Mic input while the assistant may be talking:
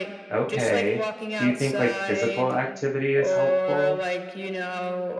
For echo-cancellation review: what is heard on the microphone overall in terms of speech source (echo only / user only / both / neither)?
both